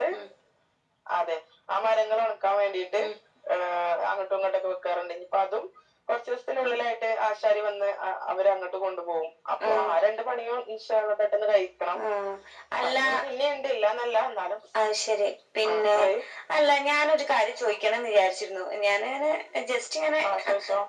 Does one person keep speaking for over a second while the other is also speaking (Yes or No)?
No